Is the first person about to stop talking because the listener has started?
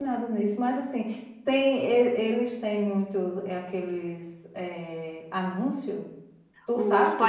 Yes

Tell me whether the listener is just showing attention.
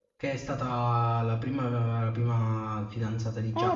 No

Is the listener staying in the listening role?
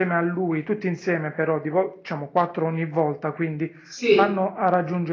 Yes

